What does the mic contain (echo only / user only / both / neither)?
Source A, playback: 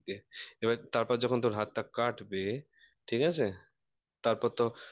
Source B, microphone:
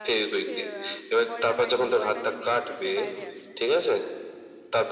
both